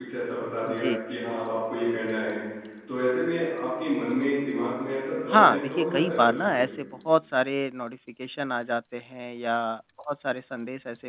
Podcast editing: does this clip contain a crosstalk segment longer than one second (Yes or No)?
Yes